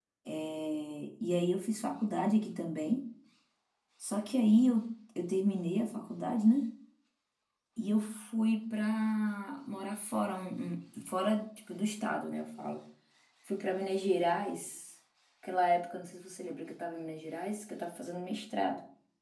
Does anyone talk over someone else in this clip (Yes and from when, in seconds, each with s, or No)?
No